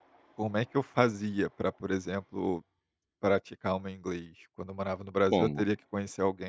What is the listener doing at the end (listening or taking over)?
listening